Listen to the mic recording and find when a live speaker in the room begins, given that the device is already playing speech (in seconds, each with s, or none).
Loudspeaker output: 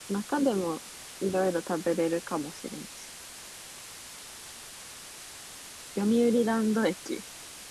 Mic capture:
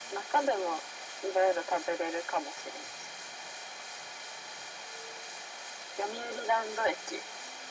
none